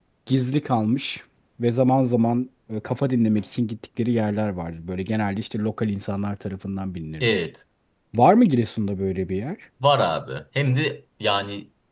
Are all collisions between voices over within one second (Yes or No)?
Yes